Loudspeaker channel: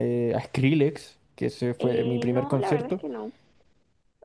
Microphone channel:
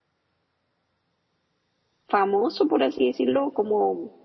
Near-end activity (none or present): present